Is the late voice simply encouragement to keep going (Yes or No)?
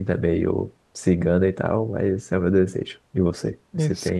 No